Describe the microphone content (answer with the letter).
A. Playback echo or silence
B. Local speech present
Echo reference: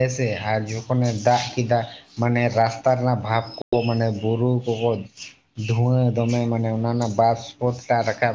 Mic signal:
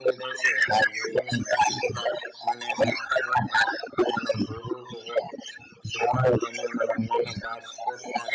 A